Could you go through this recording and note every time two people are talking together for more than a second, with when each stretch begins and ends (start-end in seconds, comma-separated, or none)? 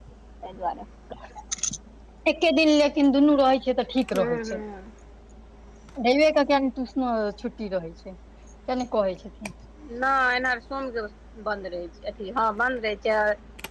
none